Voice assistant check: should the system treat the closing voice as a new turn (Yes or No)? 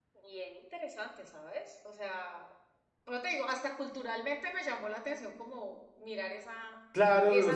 Yes